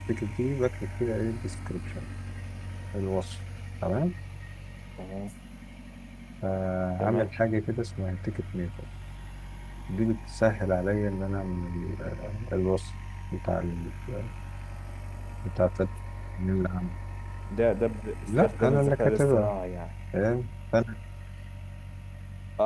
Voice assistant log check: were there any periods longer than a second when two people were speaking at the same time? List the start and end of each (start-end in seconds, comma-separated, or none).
18.3-19.5